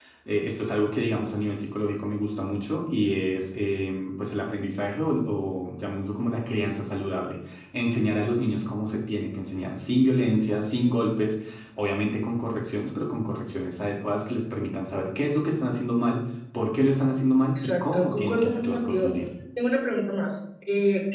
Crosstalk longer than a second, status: present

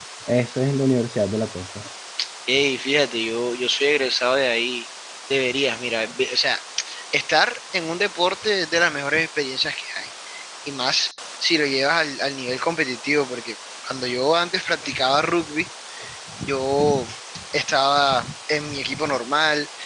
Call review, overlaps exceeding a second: none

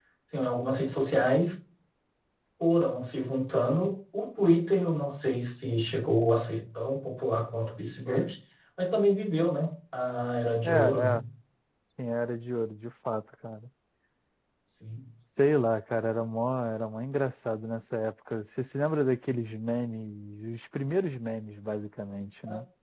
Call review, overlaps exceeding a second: none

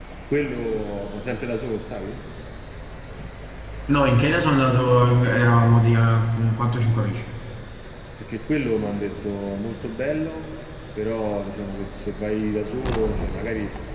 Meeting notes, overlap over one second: none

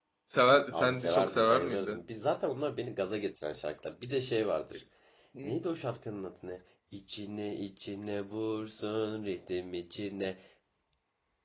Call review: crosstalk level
present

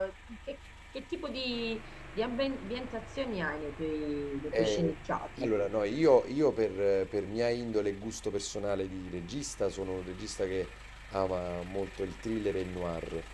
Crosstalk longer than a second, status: none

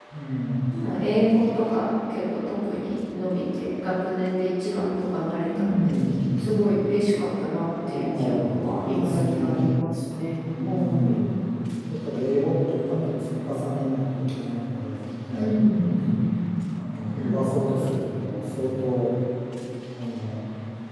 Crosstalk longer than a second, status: present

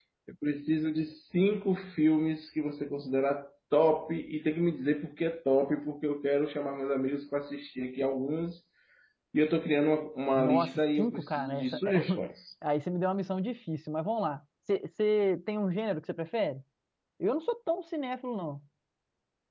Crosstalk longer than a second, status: present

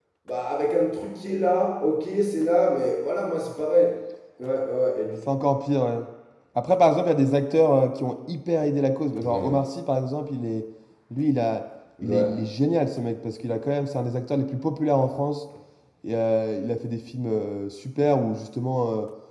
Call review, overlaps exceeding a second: none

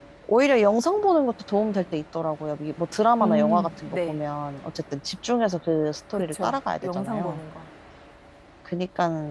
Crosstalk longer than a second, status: present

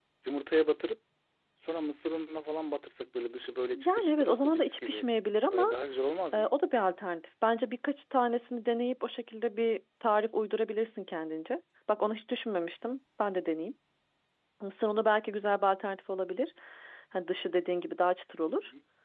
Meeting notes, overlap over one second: present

